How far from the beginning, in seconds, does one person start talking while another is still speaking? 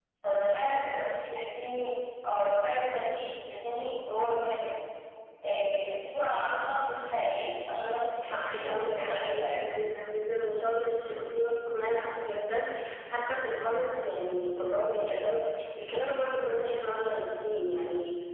8.2 s

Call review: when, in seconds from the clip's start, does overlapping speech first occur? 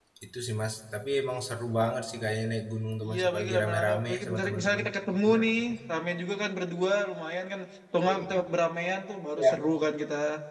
3.0 s

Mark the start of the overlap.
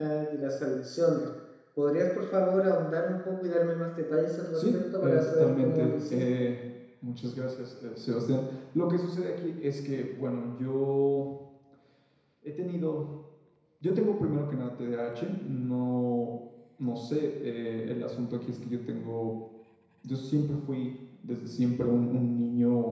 4.6 s

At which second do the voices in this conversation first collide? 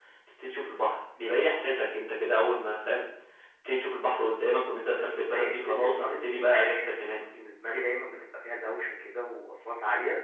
5.3 s

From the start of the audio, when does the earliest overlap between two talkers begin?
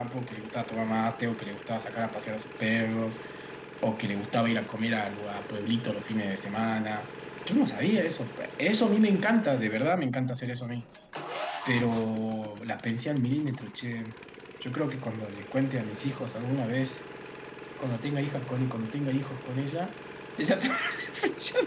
none

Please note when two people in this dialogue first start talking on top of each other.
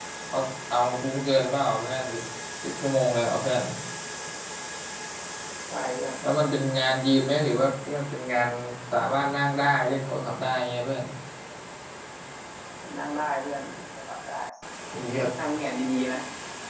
none

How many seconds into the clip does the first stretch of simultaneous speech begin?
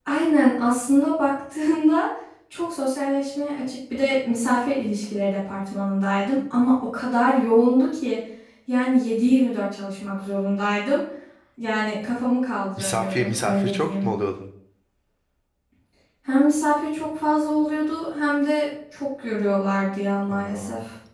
12.8 s

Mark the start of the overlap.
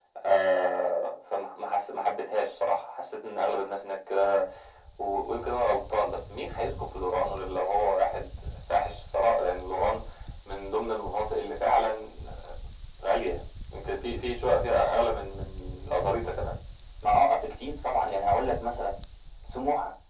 none

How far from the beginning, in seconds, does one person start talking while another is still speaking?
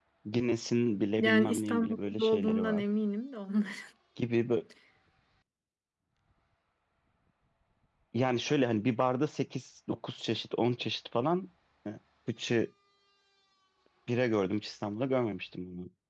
1.2 s

